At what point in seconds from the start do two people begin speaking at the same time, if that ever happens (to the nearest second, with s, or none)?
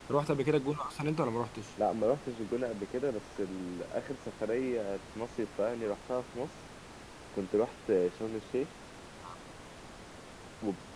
none